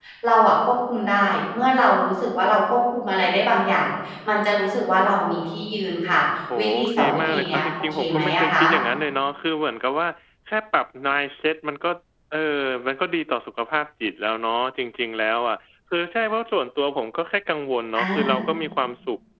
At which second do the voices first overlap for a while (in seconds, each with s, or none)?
6.6 s